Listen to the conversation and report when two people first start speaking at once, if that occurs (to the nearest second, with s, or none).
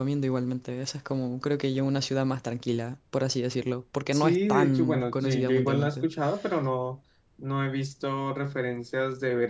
4 s